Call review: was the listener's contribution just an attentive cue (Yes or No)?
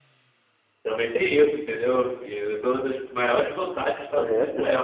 No